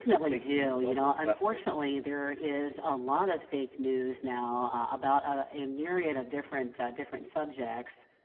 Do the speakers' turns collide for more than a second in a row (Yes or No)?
Yes